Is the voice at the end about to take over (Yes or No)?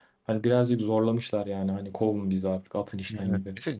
Yes